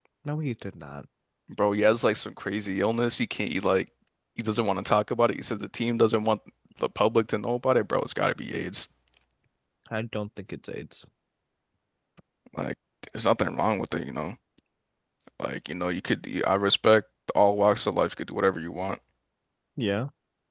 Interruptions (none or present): none